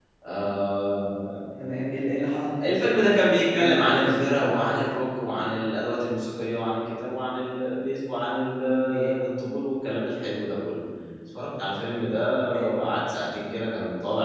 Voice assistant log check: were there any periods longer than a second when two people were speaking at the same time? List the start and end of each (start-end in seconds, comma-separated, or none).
2.7-4.8